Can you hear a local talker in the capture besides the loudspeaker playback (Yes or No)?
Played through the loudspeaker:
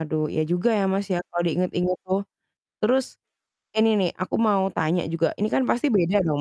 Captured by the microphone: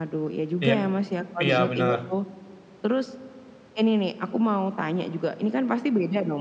Yes